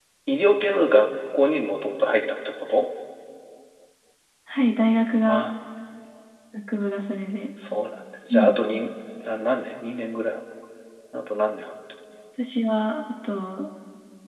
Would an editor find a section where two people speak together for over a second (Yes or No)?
No